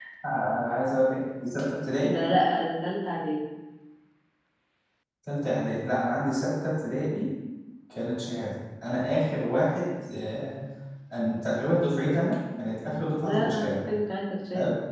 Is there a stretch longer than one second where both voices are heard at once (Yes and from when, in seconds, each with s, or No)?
No